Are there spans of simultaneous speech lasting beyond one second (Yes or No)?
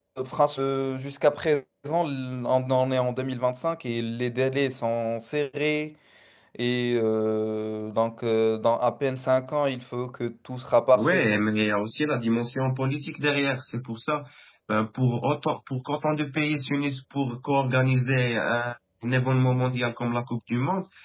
No